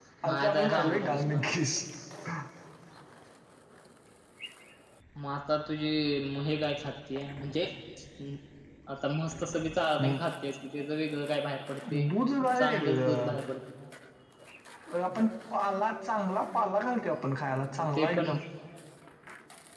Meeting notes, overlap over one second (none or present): present